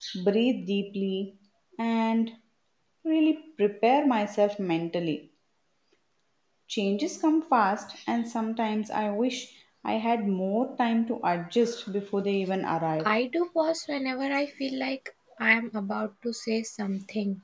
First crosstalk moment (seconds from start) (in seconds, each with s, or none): none